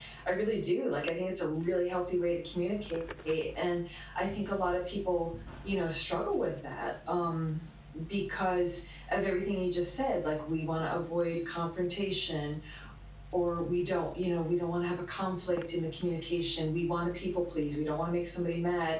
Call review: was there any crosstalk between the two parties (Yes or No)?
No